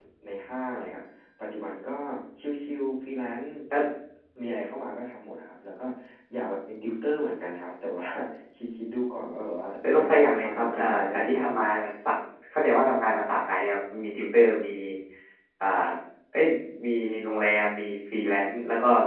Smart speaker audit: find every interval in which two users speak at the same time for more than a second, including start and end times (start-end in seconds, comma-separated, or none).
9.8-11.6